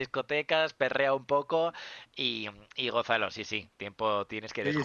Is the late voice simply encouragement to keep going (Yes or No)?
No